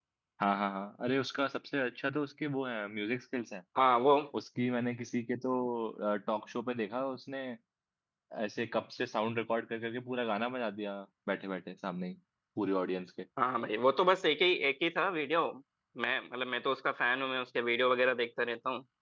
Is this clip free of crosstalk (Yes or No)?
Yes